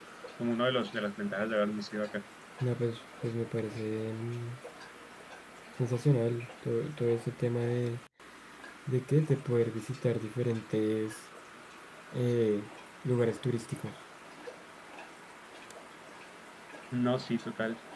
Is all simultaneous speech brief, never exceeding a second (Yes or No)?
Yes